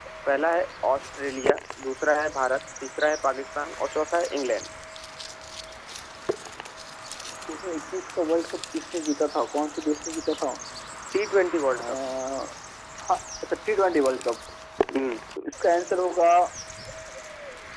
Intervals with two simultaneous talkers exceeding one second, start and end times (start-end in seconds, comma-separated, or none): none